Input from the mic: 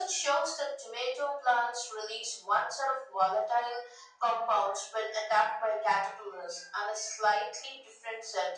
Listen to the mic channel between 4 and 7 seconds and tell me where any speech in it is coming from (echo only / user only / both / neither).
echo only